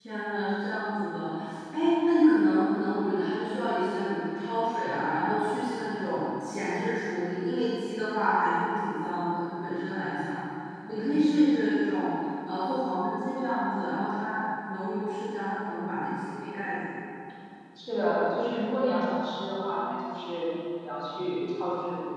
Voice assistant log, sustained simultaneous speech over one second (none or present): none